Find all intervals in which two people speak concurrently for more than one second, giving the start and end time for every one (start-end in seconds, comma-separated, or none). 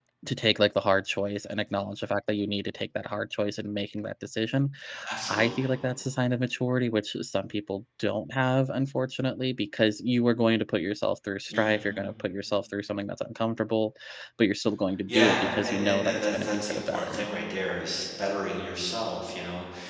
15.1-17.2